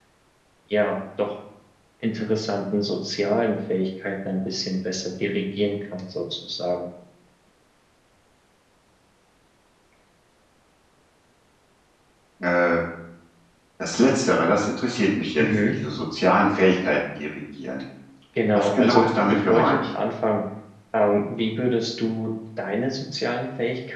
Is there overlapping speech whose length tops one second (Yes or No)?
Yes